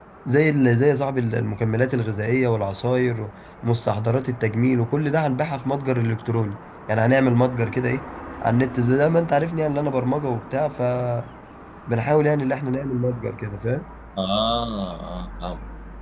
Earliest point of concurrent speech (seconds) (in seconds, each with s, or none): none